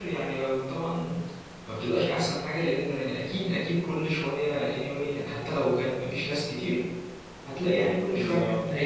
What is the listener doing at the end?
taking over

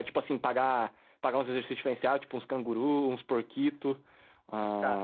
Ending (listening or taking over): taking over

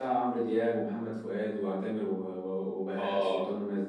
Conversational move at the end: taking over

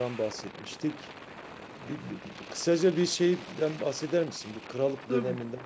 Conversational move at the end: listening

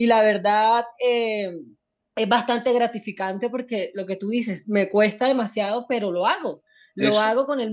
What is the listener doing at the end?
listening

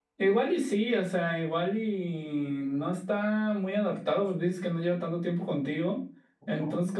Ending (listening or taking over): listening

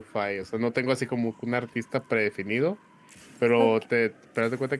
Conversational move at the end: listening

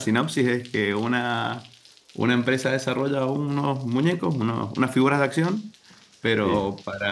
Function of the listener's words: listening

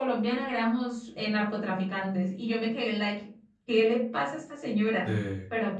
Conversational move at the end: listening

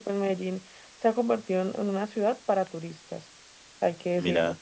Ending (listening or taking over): listening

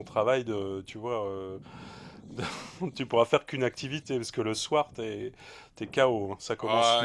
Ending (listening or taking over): taking over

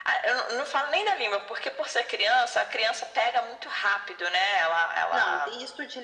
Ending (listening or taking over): taking over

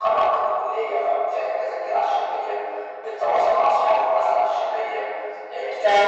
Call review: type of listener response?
listening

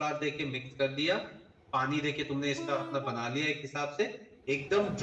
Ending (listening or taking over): listening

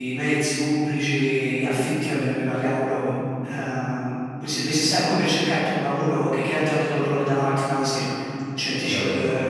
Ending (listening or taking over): taking over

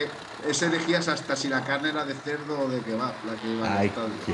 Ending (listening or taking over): taking over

